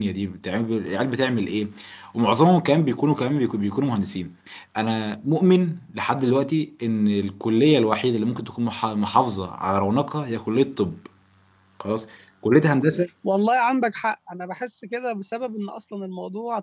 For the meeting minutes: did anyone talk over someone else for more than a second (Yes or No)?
No